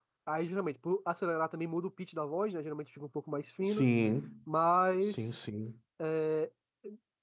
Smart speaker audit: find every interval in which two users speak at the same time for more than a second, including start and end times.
none

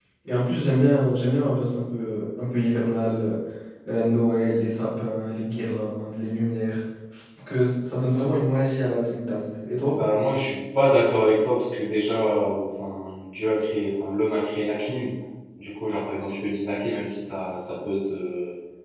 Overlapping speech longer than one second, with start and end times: none

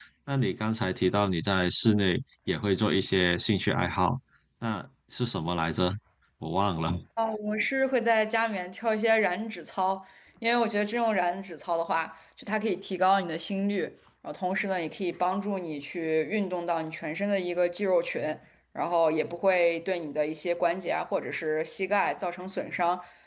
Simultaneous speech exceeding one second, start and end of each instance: none

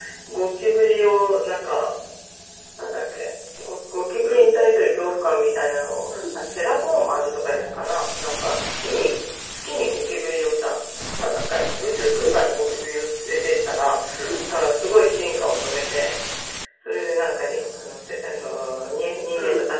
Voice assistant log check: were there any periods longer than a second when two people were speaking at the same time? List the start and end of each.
none

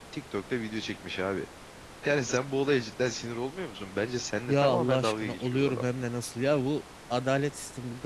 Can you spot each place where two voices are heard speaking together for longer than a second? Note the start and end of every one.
4.5-5.9

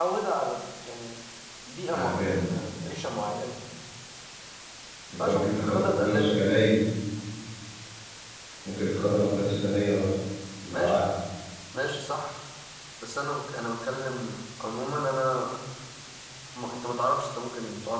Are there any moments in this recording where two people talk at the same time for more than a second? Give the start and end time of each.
5.2-6.6

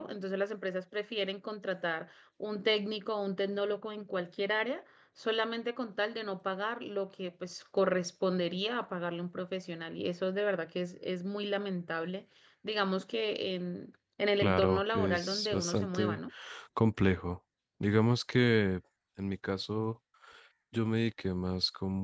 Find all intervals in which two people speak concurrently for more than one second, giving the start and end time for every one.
14.4-16.2

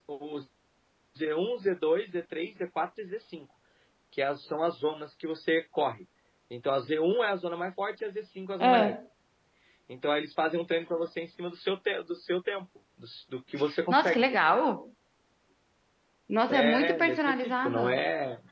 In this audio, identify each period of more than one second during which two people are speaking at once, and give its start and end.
16.5-18.0

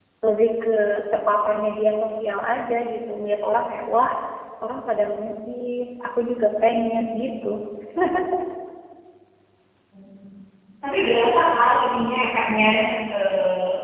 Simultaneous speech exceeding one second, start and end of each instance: none

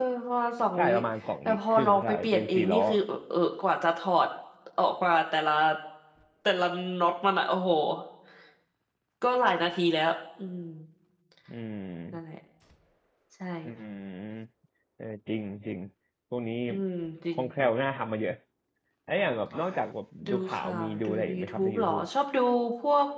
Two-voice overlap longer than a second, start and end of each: 1.4-2.8, 20.3-22.0

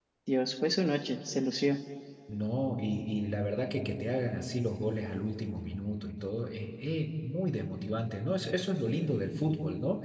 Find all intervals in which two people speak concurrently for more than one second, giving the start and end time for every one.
none

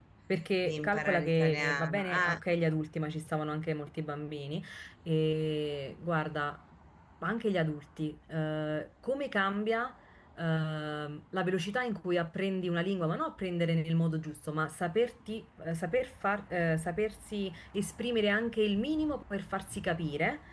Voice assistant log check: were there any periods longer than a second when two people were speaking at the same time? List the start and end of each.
0.6-2.4

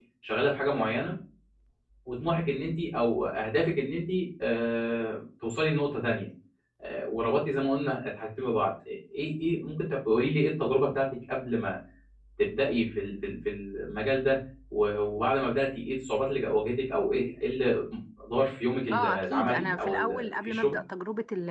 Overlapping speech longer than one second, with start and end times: 18.9-20.8

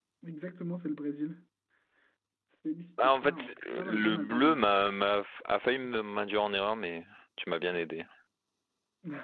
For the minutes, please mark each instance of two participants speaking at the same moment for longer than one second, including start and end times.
3.0-4.6

